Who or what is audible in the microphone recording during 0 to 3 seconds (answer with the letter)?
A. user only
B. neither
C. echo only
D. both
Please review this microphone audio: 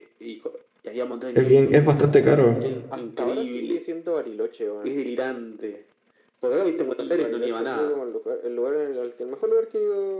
D